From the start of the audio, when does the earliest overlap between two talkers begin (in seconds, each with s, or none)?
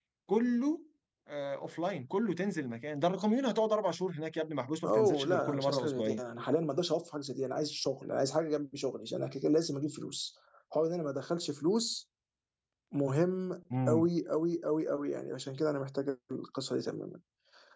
4.8 s